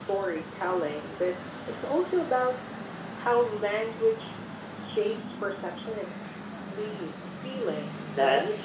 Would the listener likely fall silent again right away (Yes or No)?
No